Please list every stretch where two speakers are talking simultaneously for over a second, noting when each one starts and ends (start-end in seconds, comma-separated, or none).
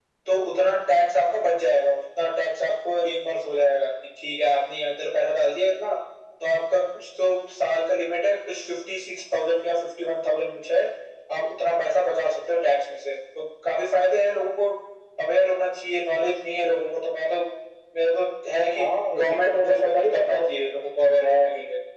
18.8-20.4